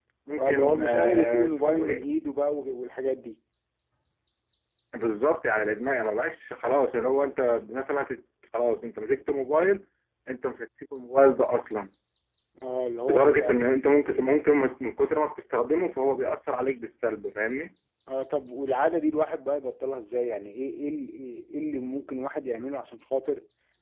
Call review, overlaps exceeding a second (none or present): present